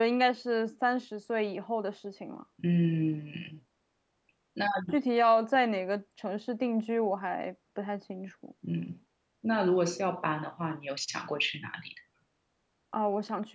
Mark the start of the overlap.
none

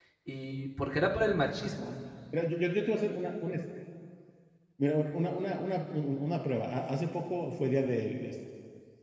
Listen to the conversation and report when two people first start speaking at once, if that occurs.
none

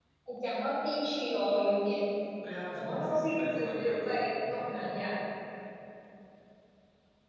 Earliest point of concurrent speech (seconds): 2.8 s

